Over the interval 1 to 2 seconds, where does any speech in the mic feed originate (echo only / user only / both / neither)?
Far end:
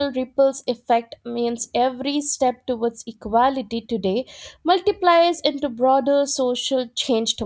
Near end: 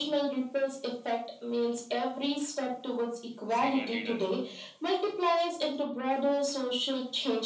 echo only